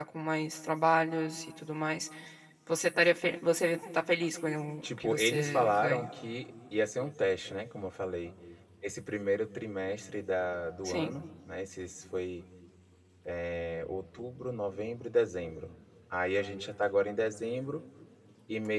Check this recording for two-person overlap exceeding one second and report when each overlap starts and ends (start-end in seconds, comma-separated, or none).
4.8-6.1